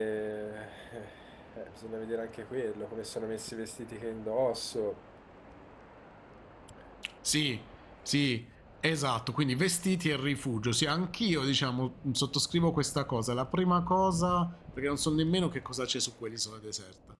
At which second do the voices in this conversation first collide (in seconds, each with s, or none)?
none